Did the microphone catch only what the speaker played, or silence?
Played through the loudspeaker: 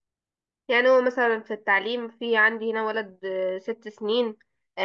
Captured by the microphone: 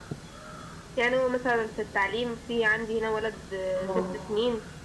No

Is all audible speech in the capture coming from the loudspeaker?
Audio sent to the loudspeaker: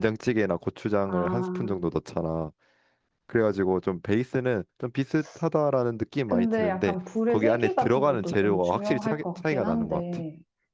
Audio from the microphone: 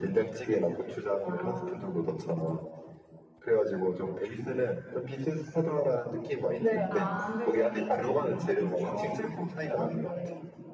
No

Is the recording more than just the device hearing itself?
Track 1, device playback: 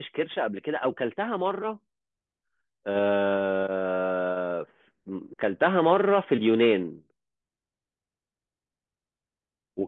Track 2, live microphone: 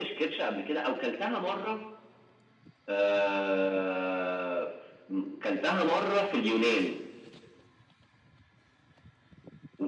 No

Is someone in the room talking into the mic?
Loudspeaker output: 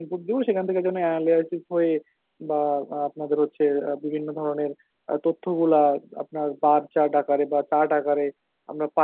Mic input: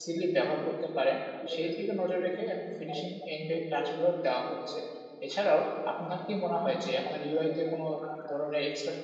Yes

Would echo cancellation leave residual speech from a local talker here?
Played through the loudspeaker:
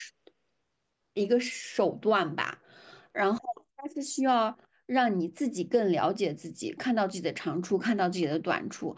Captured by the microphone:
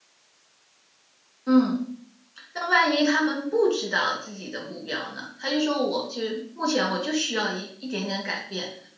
Yes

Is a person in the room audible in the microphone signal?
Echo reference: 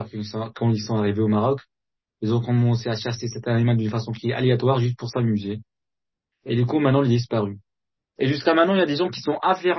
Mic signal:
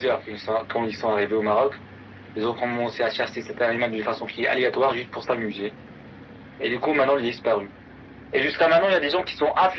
No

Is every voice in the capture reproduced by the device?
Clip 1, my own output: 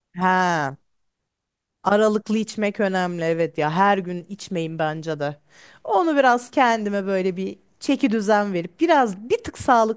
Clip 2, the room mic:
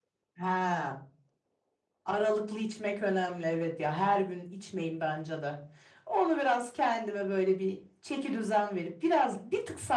Yes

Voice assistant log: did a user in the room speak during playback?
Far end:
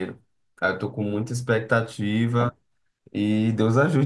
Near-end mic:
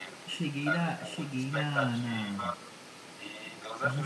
Yes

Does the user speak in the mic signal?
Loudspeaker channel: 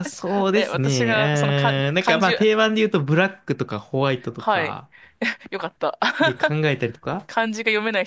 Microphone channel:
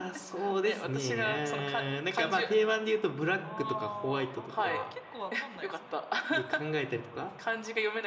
Yes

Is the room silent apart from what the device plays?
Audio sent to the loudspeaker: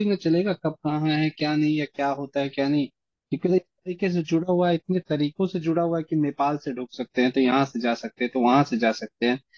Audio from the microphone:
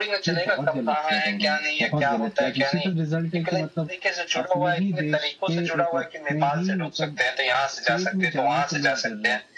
No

